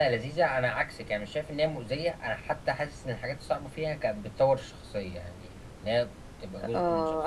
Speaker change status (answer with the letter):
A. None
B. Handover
B